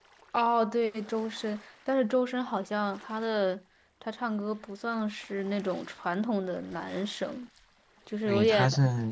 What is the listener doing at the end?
taking over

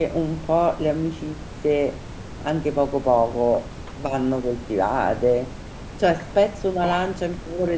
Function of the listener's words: listening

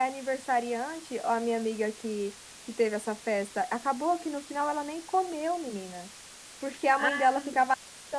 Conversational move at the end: listening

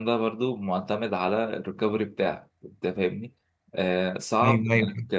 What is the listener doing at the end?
listening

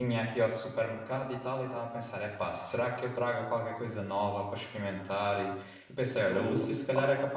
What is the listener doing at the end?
listening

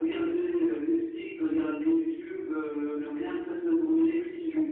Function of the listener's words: taking over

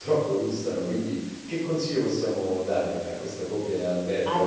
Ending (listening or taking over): taking over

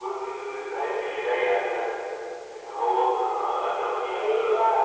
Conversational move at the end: taking over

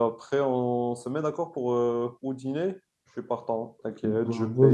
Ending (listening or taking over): taking over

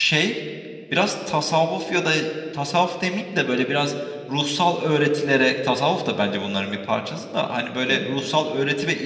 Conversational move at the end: listening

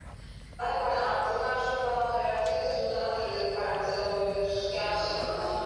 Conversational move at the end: taking over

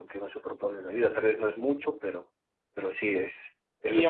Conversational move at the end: taking over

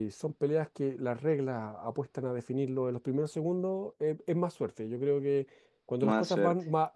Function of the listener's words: listening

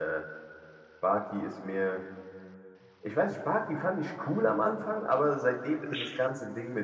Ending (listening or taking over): listening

